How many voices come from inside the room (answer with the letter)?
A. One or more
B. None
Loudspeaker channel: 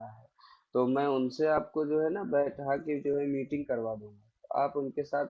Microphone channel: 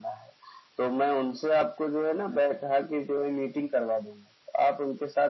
B